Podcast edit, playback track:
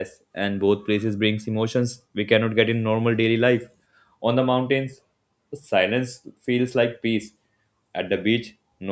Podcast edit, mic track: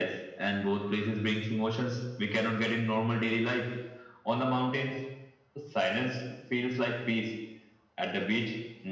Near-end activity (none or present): none